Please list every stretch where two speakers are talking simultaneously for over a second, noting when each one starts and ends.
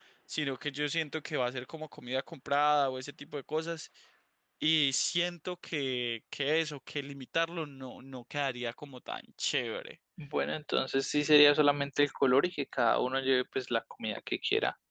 none

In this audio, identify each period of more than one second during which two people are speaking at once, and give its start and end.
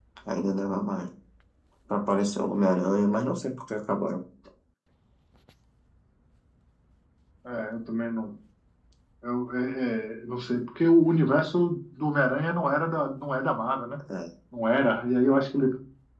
none

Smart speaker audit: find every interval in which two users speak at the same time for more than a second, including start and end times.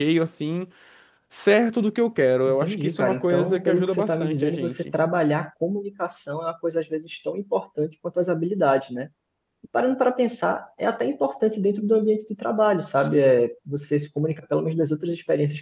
2.5-4.8

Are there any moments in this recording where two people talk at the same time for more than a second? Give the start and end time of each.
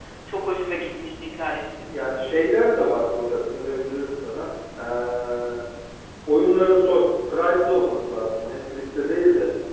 none

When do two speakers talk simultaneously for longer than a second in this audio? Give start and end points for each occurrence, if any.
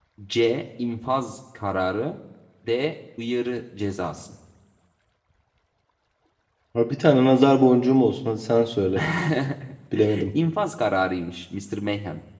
none

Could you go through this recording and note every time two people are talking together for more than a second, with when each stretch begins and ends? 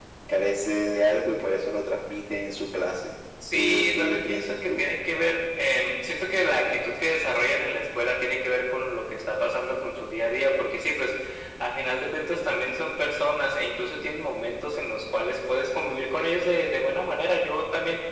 3.5-4.9

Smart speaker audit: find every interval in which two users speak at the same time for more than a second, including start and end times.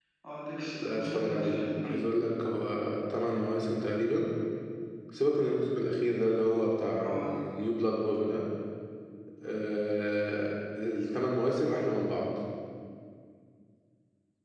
0.7-1.9

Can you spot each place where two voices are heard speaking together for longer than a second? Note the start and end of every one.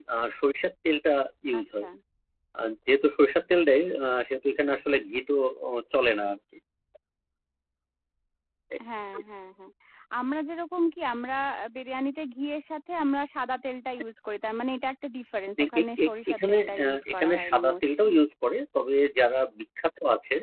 15.6-18.1

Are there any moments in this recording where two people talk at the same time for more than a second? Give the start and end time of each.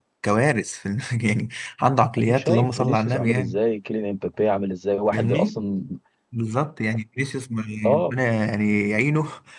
2.2-3.6

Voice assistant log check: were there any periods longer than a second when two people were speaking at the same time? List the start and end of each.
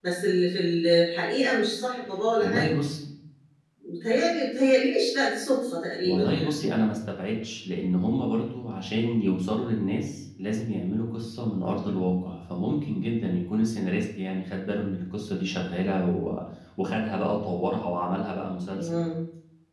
none

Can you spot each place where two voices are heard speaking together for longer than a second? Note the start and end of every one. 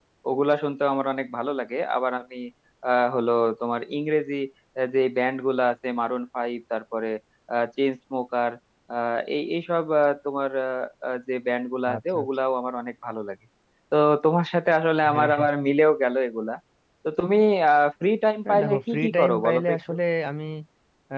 18.4-19.9

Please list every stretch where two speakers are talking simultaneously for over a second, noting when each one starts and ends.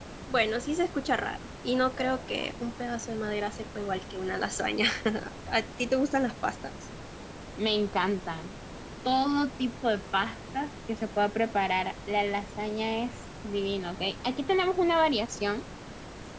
none

